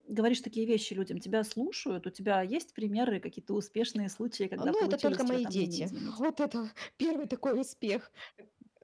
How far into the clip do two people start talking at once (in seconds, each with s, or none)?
4.6 s